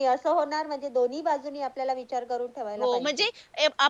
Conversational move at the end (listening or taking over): taking over